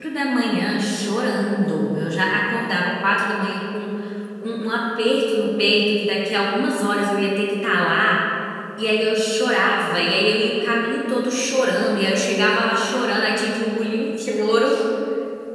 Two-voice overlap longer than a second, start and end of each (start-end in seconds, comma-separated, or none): none